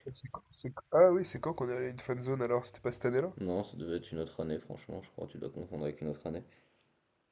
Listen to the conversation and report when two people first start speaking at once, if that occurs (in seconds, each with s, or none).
none